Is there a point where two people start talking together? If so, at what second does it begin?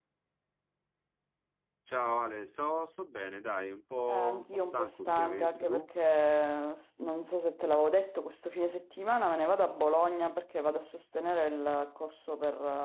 4 s

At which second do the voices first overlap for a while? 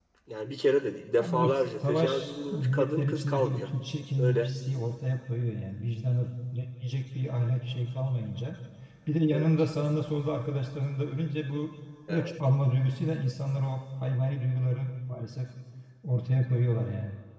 1 s

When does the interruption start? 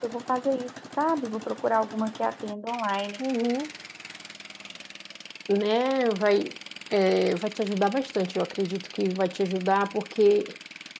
none

